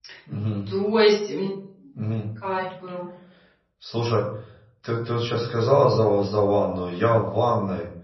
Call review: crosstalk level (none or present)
none